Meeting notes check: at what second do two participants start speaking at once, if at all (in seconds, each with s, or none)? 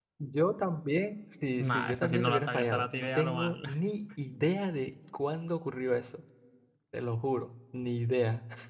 1.6 s